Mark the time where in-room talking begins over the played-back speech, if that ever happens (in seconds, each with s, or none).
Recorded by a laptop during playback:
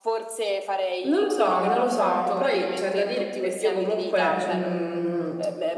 1.0 s